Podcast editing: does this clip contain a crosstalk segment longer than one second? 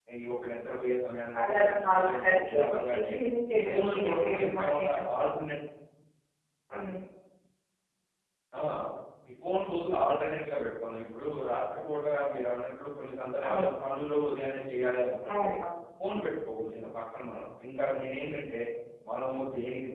Yes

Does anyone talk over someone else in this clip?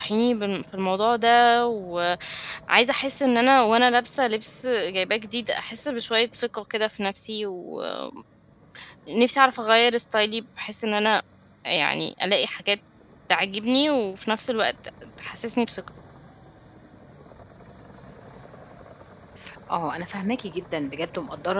No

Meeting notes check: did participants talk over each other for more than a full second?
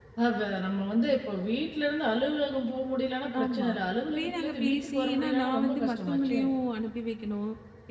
Yes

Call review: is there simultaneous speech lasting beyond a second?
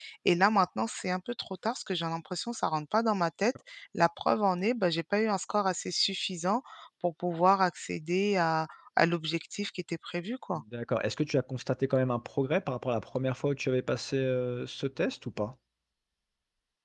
No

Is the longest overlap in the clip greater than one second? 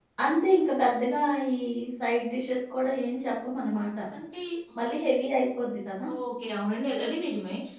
No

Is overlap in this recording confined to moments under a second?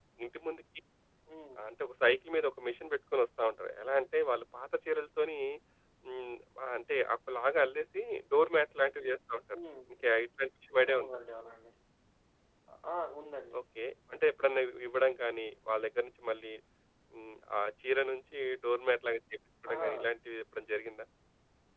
Yes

